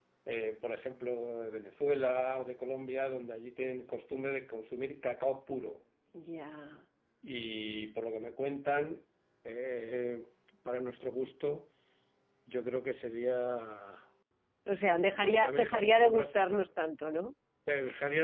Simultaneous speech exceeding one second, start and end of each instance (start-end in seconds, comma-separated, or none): 14.9-16.7